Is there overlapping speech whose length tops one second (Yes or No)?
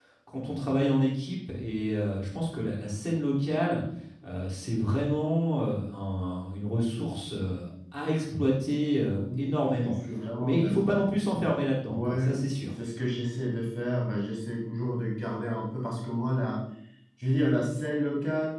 No